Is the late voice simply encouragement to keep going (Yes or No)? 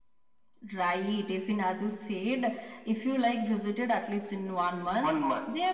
Yes